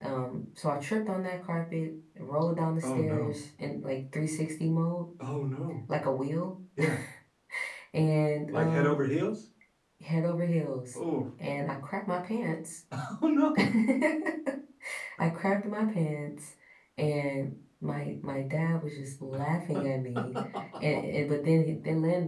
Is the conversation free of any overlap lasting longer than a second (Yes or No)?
Yes